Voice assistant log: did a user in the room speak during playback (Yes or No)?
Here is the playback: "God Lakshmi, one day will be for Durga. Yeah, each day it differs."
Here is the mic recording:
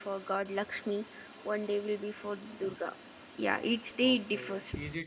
Yes